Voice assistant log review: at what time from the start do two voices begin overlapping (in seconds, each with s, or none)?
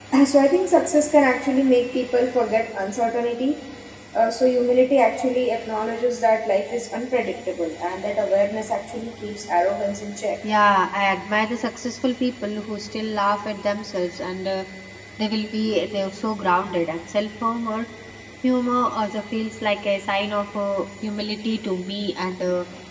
none